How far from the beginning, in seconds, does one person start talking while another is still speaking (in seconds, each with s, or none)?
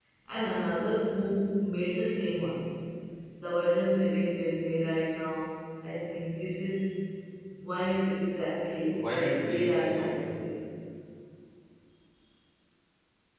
8.9 s